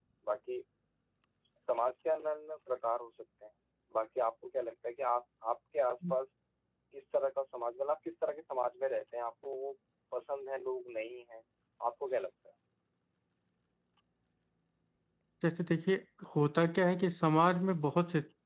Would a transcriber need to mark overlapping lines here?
No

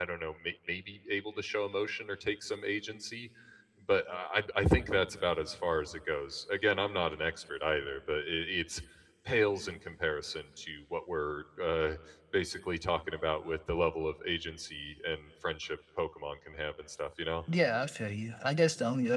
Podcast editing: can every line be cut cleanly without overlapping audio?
Yes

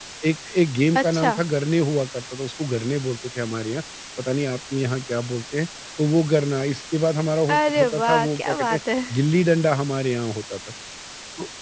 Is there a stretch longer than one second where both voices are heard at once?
Yes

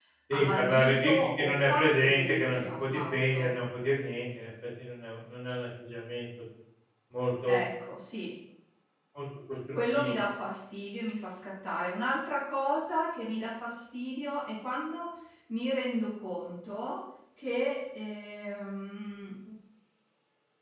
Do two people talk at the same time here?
Yes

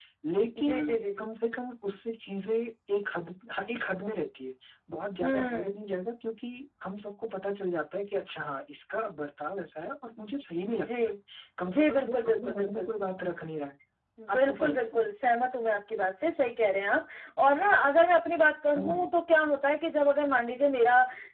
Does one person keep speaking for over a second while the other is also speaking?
Yes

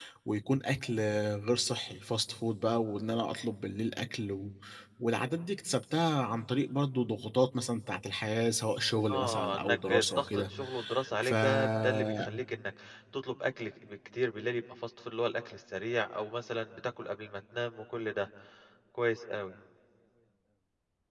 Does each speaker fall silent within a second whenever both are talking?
No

